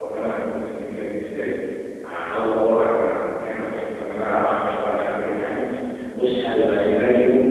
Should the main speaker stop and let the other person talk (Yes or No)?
No